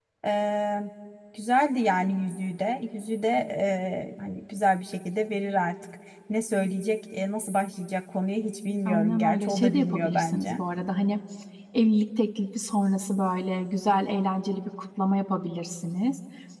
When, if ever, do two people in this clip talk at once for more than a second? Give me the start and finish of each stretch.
8.8-10.6

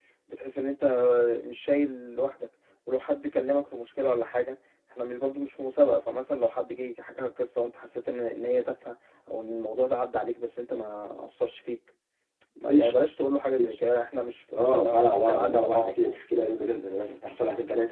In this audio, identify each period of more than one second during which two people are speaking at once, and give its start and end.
14.6-16.2

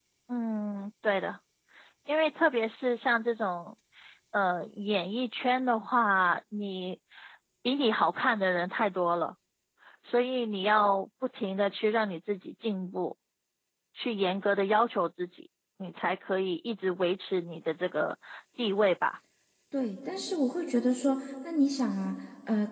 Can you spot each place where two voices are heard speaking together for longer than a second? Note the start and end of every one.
none

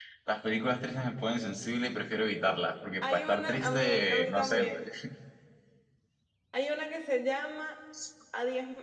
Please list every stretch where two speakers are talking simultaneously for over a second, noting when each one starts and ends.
3.0-4.6

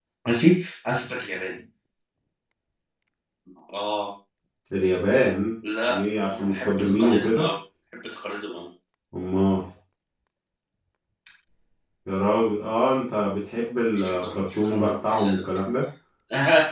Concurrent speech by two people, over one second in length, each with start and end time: 5.9-7.5, 13.9-15.4

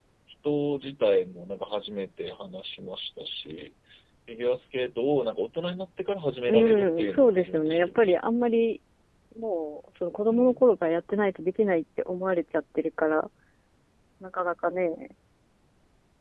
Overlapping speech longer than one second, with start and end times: 6.5-8.1

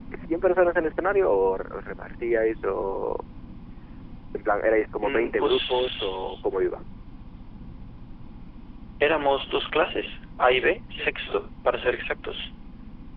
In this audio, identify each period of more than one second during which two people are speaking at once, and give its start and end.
5.0-6.4

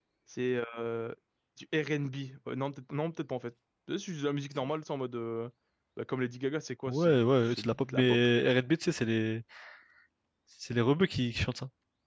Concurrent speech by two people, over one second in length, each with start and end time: 6.9-8.3

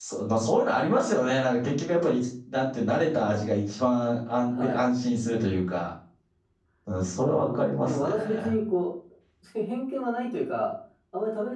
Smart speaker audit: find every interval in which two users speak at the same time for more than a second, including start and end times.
7.2-8.6

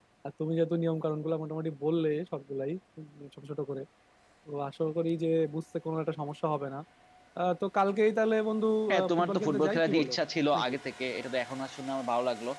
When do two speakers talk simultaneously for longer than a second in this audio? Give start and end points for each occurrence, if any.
8.9-10.1

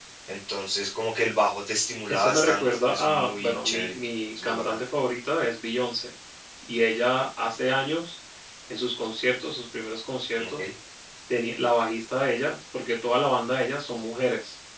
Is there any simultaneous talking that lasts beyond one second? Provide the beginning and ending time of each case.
2.1-3.9

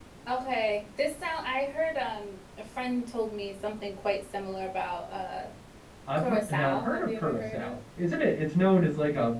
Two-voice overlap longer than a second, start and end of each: 6.2-7.8

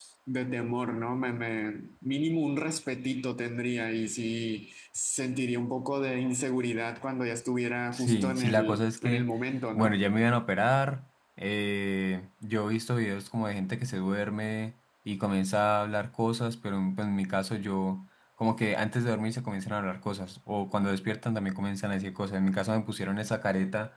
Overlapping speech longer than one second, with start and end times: 7.9-9.3

